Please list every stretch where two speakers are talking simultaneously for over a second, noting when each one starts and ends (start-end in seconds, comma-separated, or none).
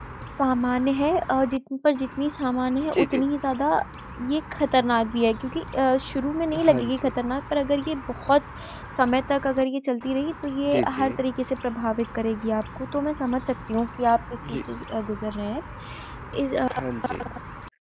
none